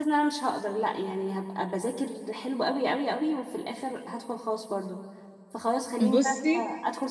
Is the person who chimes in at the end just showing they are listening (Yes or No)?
Yes